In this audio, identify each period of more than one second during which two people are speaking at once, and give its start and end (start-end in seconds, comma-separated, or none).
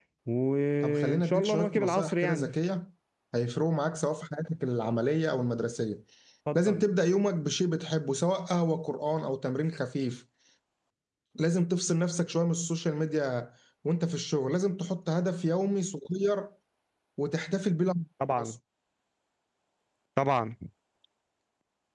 0.8-2.5